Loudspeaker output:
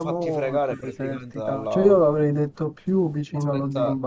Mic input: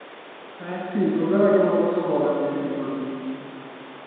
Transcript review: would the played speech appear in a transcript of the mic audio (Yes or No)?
No